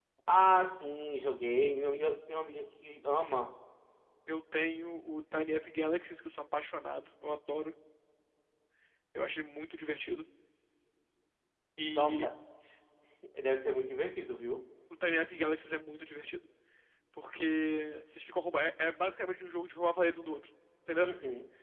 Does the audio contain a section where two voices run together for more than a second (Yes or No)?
No